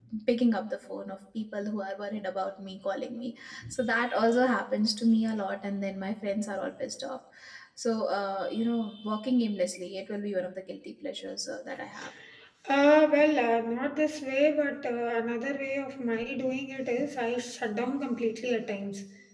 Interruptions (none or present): none